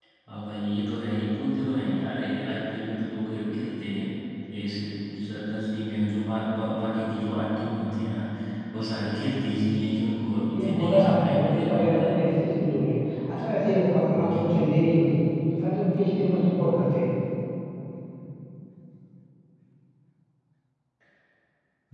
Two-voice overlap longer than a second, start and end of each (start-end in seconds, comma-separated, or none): 10.5-12.2